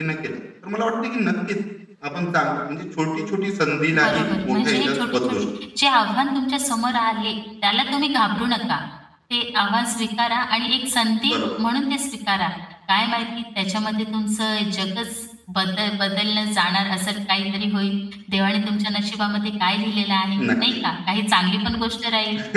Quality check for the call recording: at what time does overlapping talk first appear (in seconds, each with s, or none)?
4.0 s